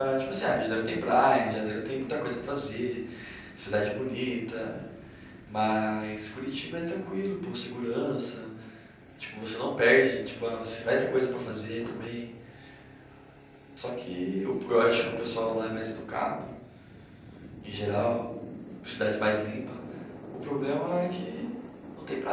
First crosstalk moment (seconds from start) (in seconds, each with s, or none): none